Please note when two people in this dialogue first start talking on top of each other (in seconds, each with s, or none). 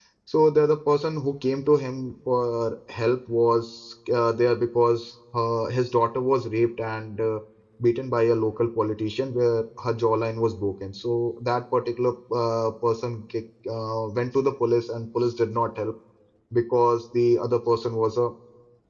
none